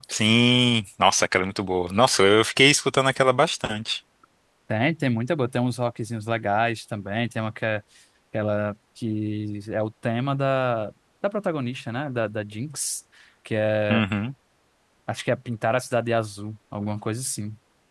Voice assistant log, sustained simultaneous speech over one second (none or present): none